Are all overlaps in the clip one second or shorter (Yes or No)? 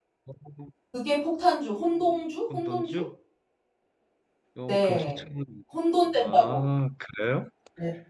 Yes